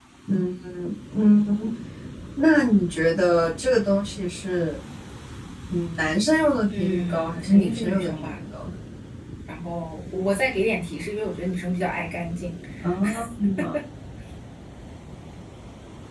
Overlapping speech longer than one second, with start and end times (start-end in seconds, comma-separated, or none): 6.8-8.4